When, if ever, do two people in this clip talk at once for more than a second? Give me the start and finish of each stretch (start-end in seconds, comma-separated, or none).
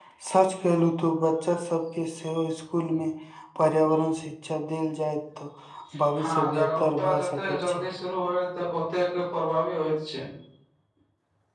6.2-7.8